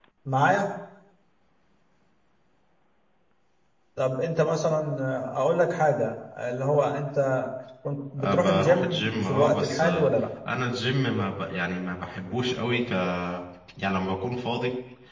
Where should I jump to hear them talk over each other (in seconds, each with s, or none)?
8.2 s